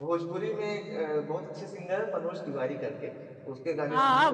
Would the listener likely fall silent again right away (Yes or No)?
No